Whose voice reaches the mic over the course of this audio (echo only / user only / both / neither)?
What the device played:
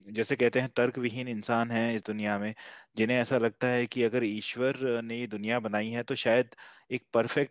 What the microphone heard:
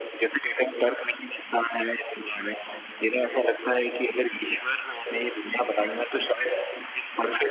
echo only